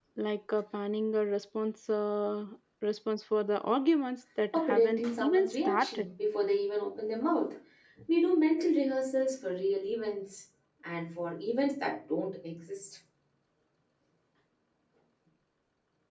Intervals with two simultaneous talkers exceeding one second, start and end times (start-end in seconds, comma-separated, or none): 4.5-6.1